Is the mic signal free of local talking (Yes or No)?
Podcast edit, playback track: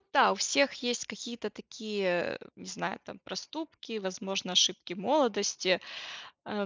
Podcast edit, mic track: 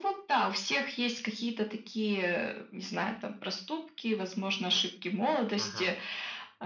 No